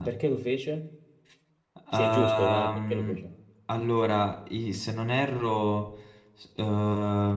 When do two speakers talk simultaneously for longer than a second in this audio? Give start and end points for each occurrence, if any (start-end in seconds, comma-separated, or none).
1.9-3.2